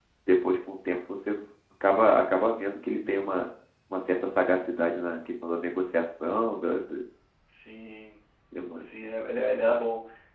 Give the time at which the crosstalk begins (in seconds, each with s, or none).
none